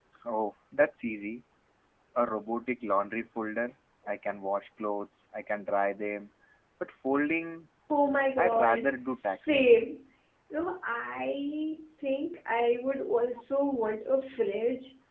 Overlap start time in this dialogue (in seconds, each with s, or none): 8.4 s